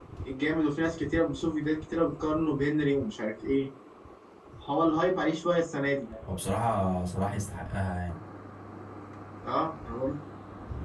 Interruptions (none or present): none